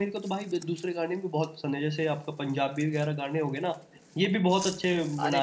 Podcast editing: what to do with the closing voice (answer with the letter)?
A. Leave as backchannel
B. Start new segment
B